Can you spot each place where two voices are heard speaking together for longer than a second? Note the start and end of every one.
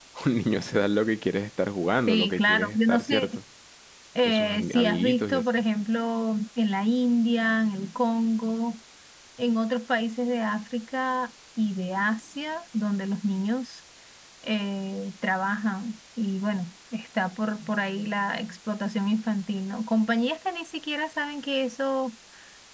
2.1-3.3, 4.2-5.4

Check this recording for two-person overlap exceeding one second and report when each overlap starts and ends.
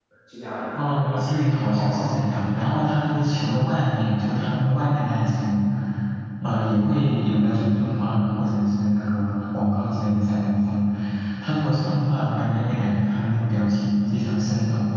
0.8-2.6

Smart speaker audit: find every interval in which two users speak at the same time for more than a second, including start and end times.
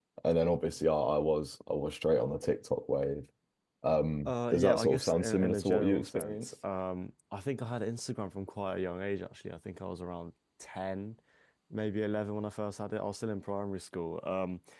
4.2-6.5

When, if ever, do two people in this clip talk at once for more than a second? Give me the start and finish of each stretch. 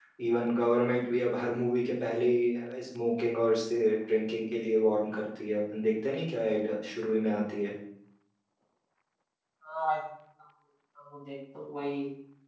none

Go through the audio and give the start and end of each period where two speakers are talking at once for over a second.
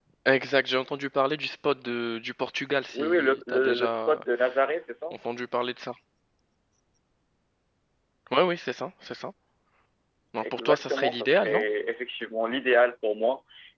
2.9-4.2, 10.4-11.6

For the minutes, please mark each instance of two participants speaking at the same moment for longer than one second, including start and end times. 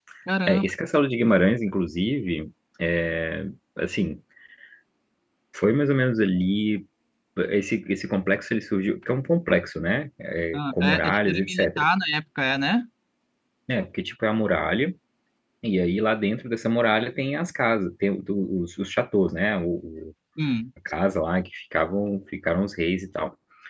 10.5-11.8

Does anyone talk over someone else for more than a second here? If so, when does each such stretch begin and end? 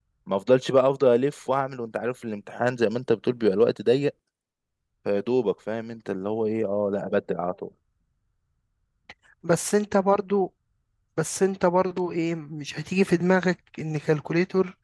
none

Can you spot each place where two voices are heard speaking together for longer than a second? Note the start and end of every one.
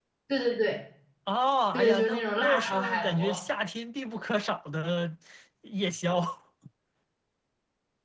1.7-3.4

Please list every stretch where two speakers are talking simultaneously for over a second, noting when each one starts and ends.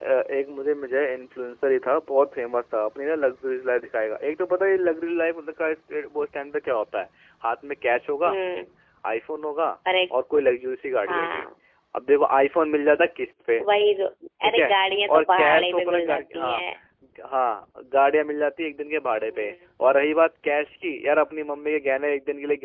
15.1-16.6

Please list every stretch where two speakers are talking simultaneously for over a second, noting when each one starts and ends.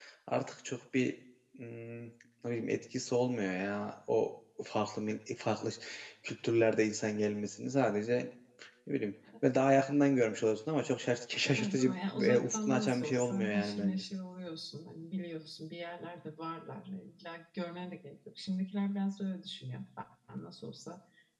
11.6-14.0

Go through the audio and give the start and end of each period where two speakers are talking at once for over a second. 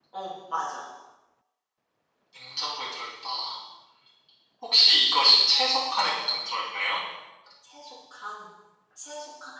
none

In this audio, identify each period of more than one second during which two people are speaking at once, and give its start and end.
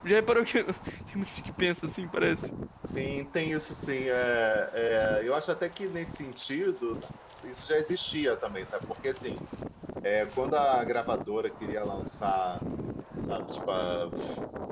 none

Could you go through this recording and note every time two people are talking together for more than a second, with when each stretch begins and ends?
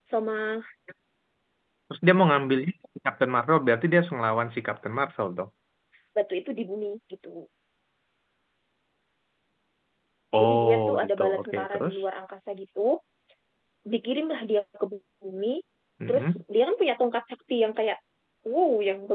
10.4-11.9

